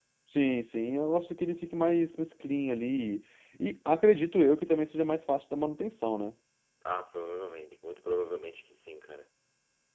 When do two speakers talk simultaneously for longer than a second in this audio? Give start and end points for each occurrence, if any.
none

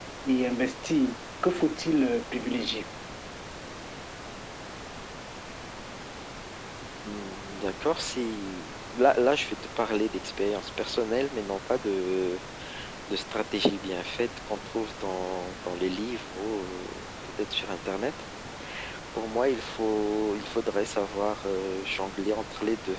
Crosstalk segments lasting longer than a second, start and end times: none

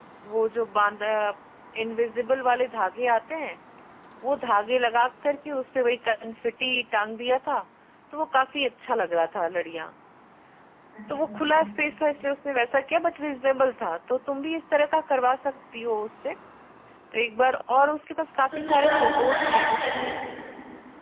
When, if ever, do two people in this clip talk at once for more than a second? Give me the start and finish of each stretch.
18.6-20.1

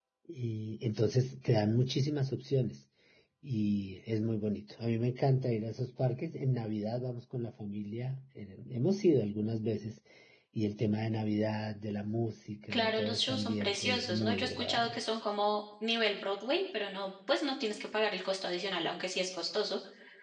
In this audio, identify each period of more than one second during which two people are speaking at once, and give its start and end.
12.7-15.0

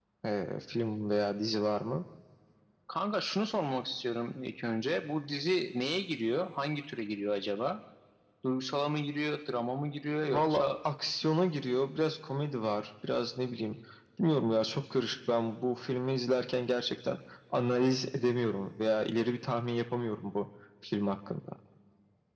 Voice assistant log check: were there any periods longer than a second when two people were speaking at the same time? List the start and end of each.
none

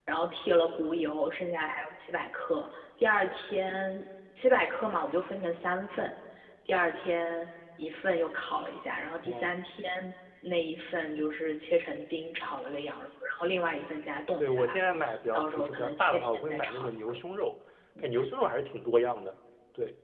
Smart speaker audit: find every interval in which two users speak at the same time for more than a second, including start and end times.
15.3-17.2

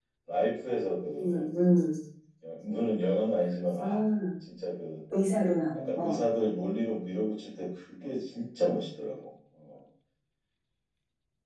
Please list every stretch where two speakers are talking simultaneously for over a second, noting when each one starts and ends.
none

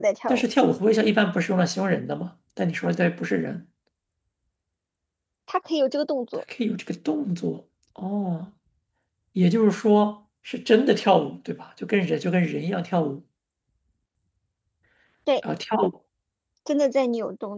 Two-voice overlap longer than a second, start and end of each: none

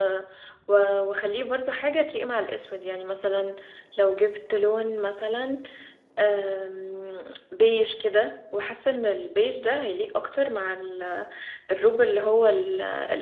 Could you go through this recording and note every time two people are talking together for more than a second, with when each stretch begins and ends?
none

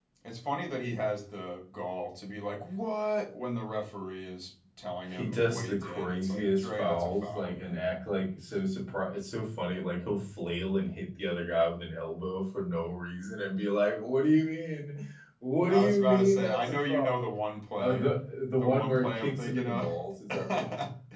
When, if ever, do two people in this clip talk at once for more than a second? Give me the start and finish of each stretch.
5.1-7.8, 15.7-17.1, 18.6-19.9

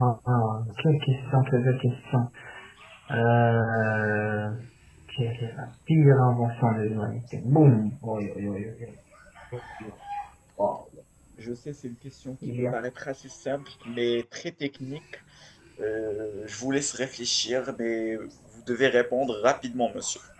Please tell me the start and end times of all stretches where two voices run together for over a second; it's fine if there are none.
none

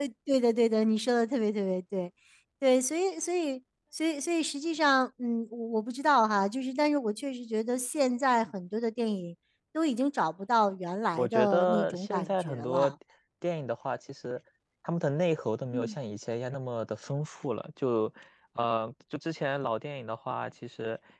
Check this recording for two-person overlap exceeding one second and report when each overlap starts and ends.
11.2-12.9

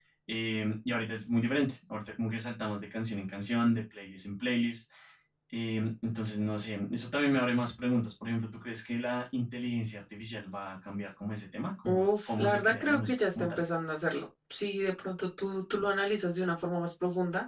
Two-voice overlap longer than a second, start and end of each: 11.8-13.6

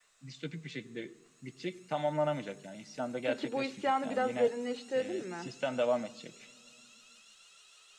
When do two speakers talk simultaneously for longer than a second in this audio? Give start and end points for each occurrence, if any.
3.3-4.5

